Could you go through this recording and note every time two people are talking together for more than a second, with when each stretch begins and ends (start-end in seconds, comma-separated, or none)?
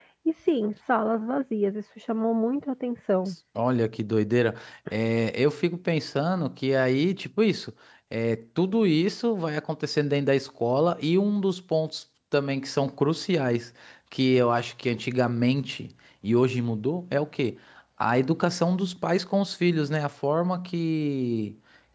none